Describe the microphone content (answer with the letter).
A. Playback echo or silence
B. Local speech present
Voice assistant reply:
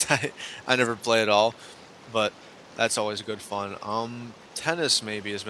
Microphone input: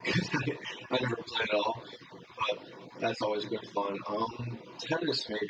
A